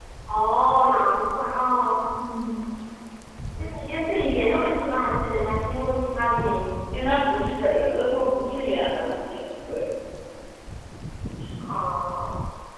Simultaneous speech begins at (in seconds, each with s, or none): none